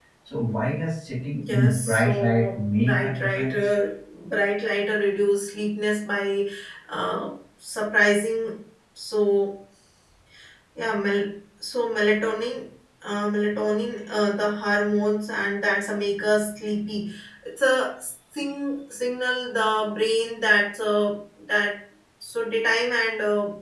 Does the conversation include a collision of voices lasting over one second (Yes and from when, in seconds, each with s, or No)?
Yes, from 1.4 s